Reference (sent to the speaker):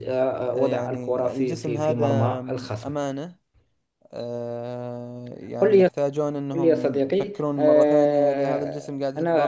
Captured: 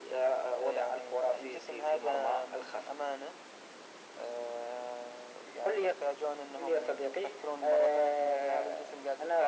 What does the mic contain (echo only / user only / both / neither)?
echo only